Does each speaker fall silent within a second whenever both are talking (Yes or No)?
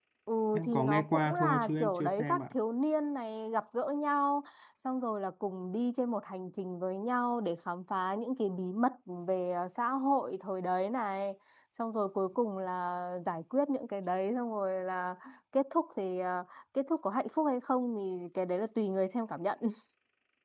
No